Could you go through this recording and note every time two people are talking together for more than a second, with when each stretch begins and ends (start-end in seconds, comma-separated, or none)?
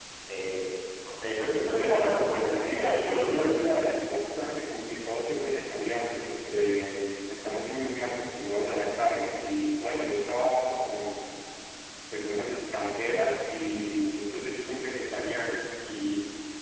1.7-3.5